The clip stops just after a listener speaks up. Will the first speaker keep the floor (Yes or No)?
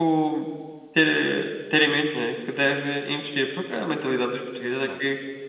Yes